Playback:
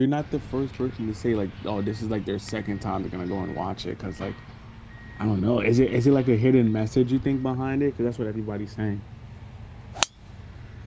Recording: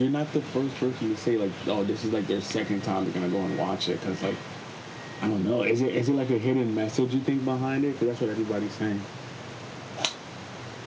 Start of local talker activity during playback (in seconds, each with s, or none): none